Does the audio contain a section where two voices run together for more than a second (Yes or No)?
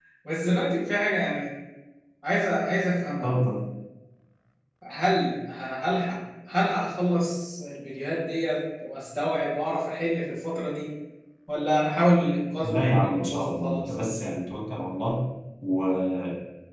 Yes